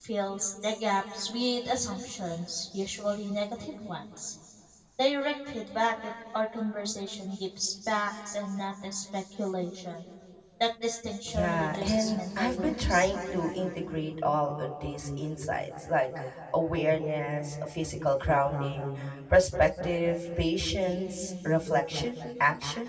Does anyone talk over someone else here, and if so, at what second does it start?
11.3 s

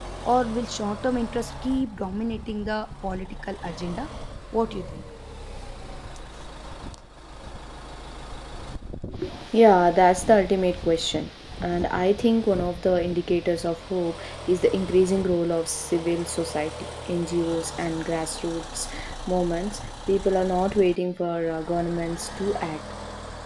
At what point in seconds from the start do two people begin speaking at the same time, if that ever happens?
none

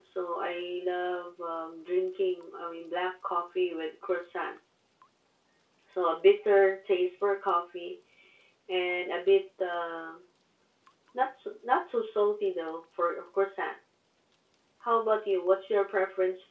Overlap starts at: none

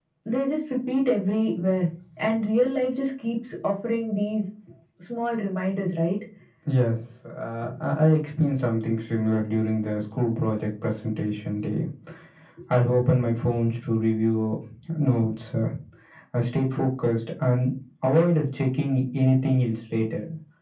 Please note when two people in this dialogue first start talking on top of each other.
none

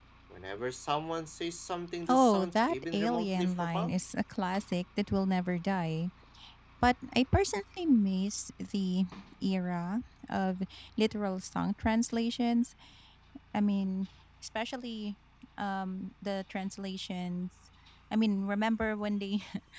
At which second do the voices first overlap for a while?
2.1 s

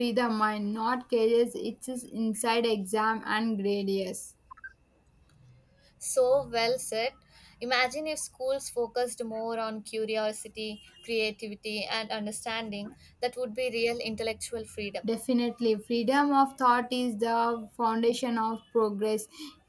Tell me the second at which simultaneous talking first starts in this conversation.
none

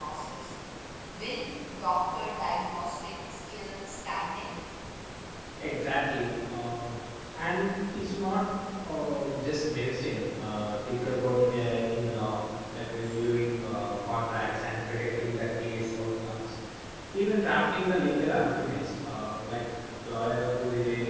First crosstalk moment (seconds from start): none

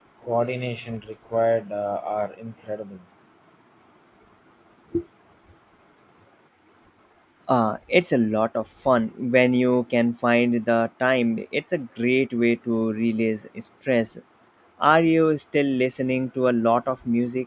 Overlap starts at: none

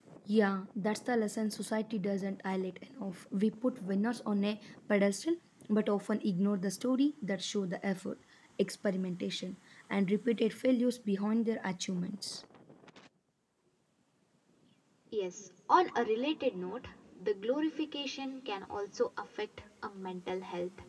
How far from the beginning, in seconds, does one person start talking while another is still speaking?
none

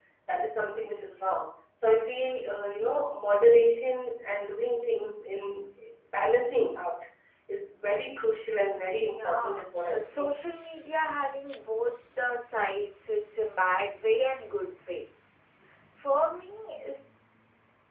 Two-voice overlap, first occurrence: 8.9 s

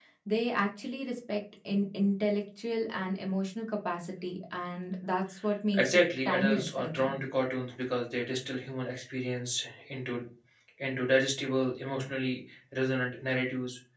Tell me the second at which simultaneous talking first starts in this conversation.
5.7 s

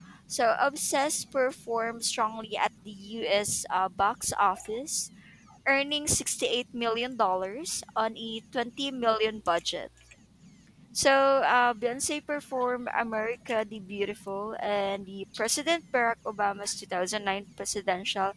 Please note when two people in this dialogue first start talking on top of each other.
none

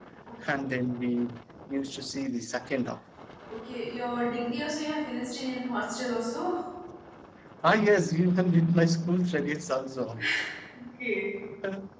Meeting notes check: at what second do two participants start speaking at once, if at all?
none

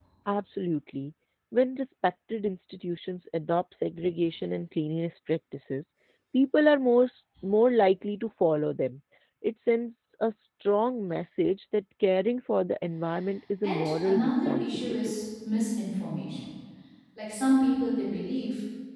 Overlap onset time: 13.6 s

